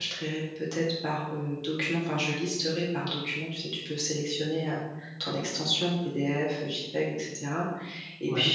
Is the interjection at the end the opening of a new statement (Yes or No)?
No